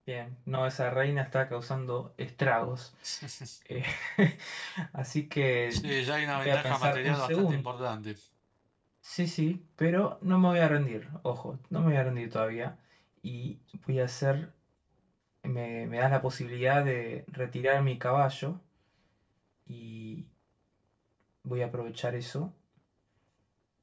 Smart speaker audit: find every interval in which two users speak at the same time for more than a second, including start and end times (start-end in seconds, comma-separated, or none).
6.3-7.6